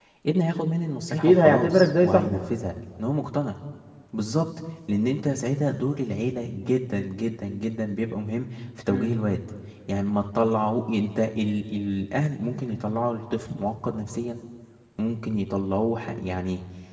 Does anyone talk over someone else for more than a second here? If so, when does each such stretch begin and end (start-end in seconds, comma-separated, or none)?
1.1-2.4